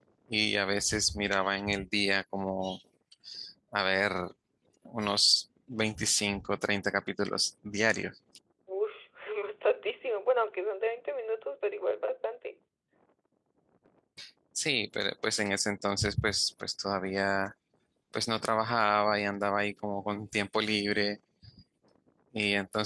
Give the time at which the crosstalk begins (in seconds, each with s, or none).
none